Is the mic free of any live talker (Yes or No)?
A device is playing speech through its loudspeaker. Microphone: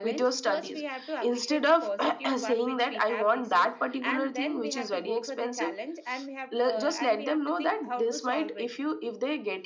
Yes